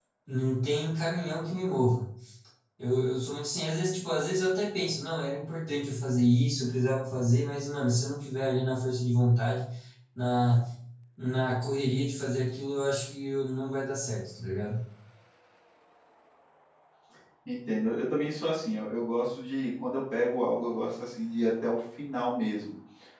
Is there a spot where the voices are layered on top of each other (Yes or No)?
No